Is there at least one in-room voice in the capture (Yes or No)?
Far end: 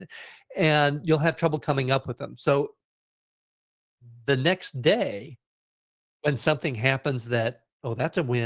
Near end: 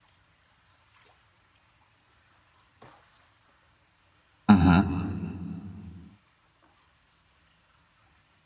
Yes